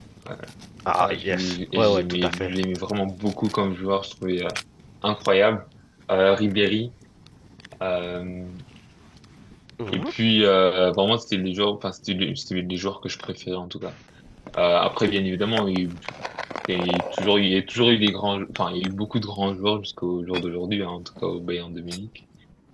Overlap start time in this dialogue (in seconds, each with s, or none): 1.0 s